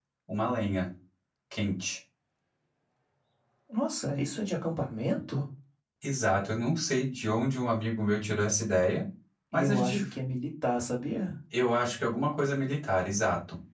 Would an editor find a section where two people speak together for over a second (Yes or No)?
No